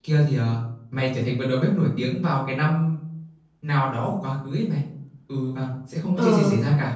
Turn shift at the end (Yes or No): No